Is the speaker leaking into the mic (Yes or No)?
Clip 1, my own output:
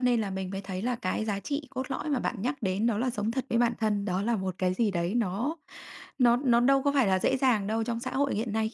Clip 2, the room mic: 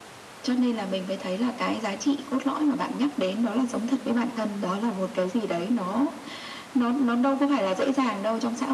Yes